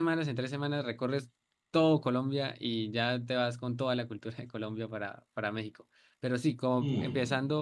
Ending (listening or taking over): listening